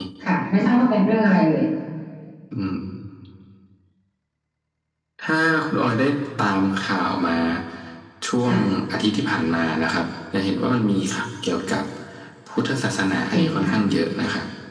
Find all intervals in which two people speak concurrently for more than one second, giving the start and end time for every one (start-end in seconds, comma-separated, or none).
none